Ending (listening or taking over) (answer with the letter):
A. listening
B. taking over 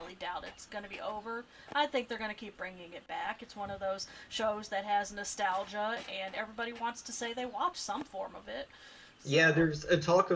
B